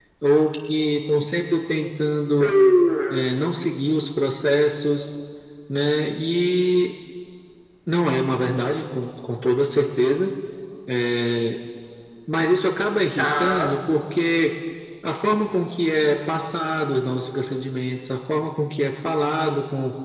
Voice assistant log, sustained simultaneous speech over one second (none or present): none